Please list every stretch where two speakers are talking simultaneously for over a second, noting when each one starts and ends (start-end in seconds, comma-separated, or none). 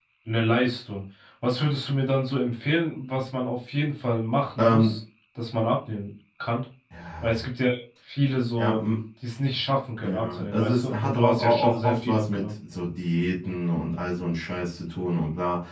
10.0-12.5